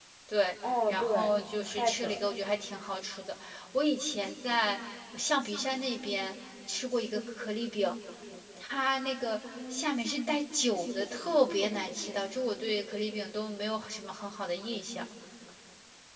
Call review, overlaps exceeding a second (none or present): present